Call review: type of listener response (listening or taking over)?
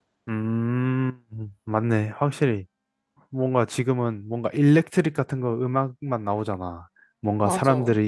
listening